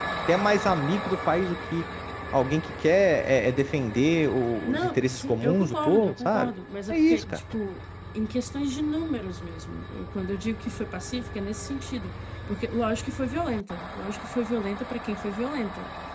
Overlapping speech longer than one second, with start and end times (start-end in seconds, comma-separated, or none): 4.6-6.5